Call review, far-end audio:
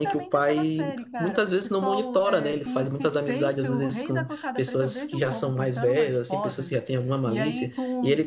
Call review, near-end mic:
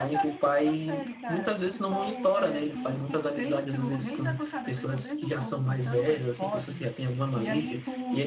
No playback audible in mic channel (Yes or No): No